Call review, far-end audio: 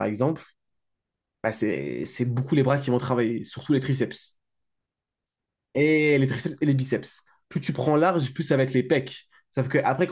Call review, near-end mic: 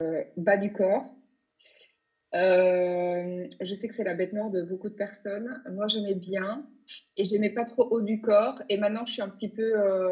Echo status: none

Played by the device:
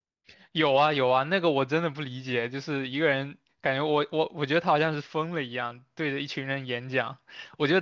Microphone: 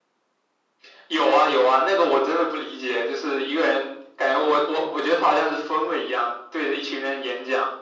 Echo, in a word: present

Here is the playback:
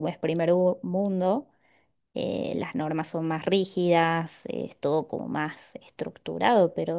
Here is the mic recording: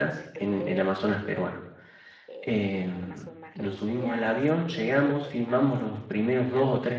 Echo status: present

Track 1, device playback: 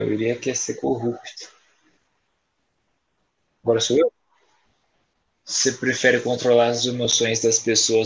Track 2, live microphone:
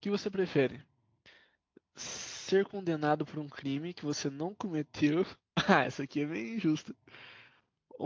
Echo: none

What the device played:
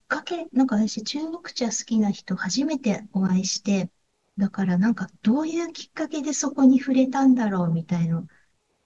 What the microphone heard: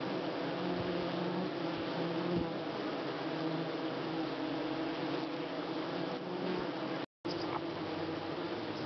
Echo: none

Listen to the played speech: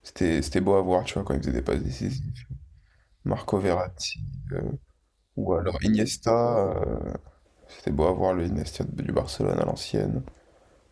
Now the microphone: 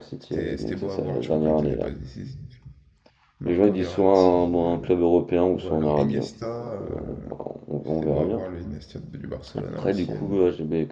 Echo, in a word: present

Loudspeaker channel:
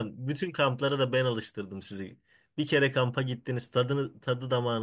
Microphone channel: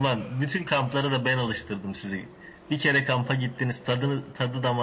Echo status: present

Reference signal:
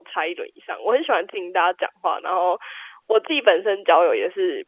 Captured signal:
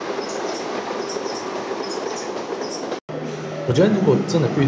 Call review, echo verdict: none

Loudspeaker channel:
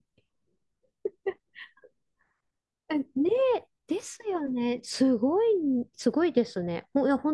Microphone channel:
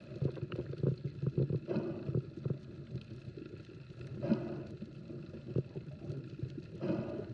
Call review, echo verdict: none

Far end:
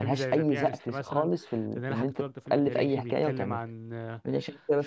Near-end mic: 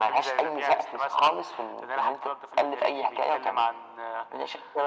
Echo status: present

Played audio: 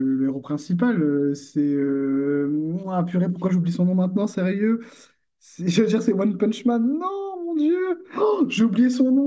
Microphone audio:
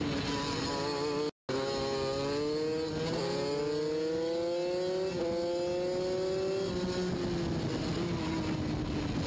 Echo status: none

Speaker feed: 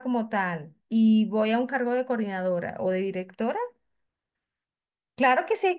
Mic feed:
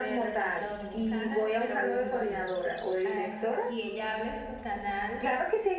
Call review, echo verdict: present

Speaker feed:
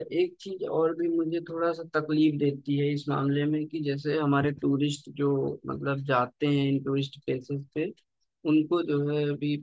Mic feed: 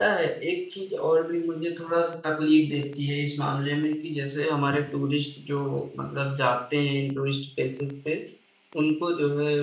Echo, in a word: present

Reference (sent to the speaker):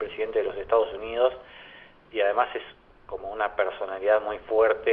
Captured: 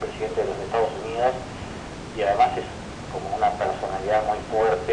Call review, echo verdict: present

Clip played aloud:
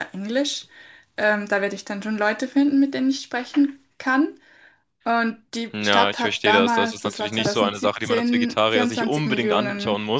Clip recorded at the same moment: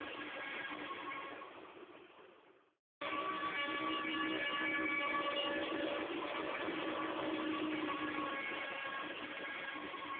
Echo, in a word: none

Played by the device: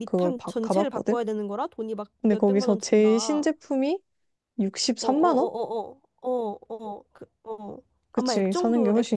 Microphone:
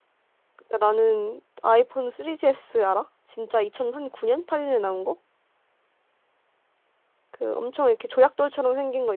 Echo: none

